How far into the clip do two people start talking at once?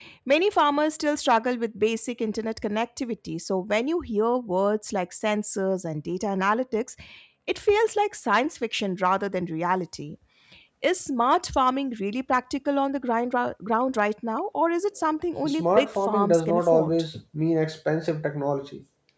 15.4 s

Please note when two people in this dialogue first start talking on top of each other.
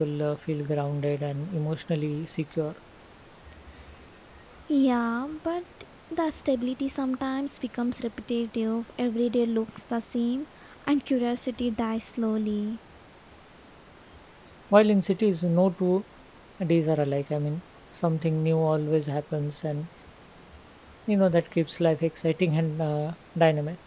none

